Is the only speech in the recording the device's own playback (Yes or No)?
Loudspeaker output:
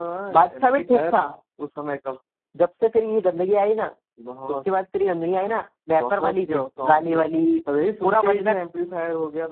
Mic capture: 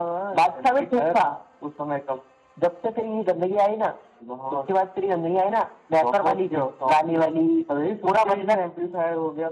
Yes